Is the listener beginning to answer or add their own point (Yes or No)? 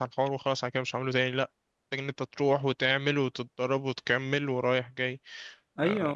Yes